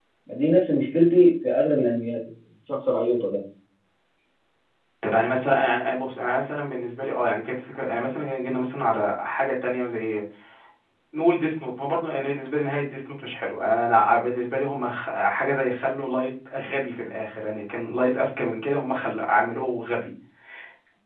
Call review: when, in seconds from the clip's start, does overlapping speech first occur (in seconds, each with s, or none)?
none